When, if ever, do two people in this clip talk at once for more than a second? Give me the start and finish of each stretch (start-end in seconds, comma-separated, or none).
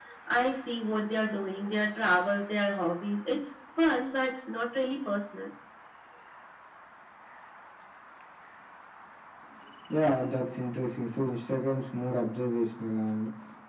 none